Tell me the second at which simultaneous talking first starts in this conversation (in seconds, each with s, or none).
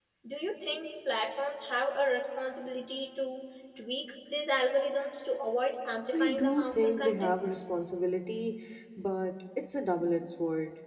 6.1 s